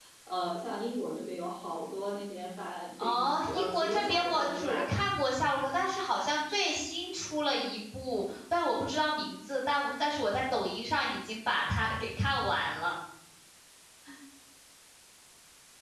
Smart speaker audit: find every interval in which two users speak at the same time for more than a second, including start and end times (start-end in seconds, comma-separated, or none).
3.0-5.0